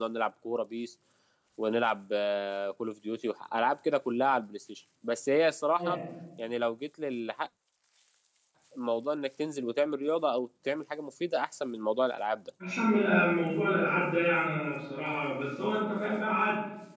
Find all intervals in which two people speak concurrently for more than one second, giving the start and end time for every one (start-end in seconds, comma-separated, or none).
none